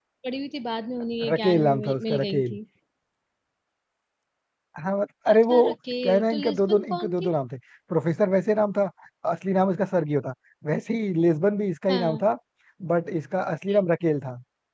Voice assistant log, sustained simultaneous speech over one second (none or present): present